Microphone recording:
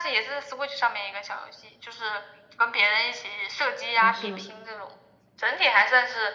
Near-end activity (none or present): present